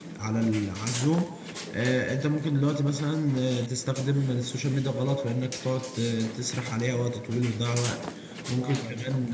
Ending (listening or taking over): listening